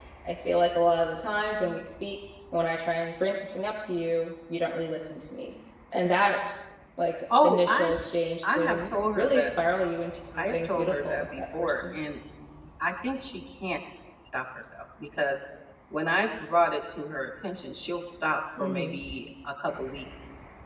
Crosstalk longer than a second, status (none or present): present